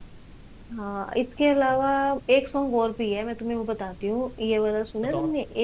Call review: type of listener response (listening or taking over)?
listening